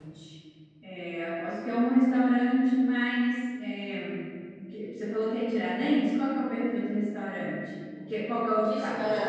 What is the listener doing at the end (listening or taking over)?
taking over